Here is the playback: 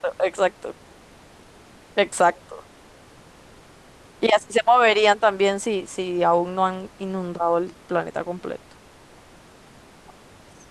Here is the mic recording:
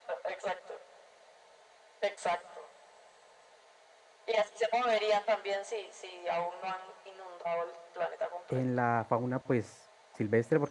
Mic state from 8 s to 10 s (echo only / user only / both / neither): both